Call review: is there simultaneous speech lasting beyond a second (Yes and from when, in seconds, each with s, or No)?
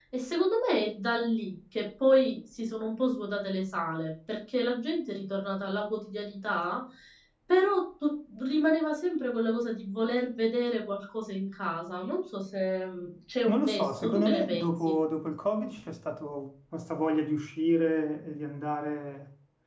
Yes, from 13.5 s